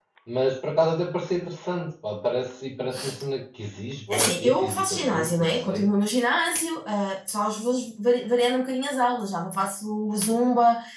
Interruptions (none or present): present